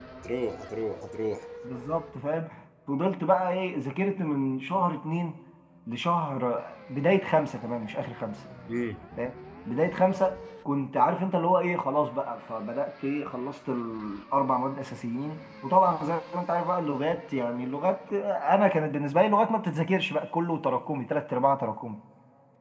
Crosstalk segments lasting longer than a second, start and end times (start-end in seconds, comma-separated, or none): none